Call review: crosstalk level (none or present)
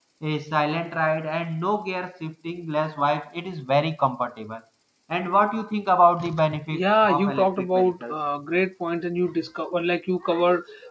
present